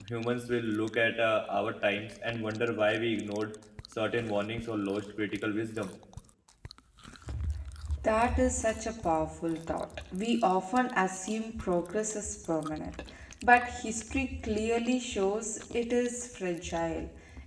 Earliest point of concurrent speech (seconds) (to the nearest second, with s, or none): none